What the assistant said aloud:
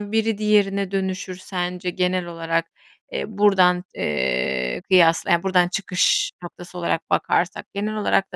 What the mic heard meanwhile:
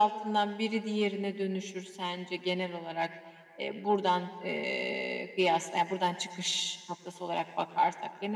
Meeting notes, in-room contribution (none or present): none